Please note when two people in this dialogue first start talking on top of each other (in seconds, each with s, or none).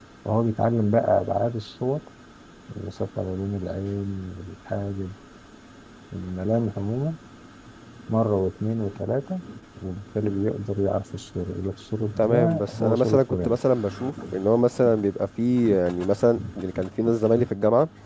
12.2 s